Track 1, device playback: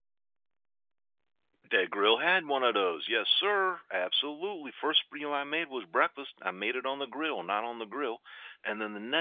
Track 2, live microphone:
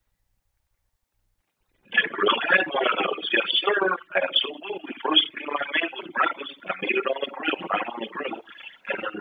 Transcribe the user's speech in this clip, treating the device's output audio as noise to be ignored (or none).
none